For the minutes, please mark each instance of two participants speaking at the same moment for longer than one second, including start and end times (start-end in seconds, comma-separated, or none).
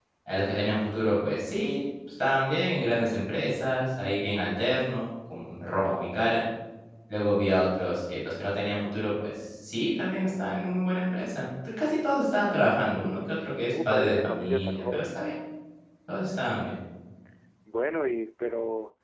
13.7-15.2